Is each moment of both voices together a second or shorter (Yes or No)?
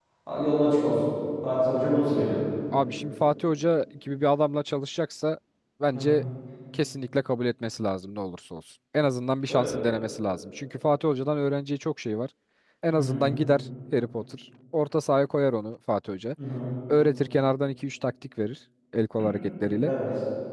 Yes